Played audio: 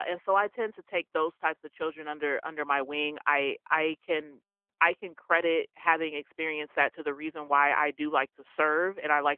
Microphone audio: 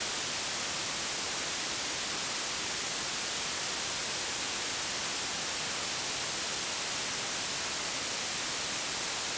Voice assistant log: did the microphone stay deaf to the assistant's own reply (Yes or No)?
Yes